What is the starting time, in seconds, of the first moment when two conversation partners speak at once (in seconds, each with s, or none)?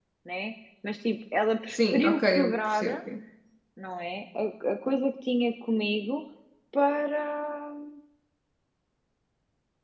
1.7 s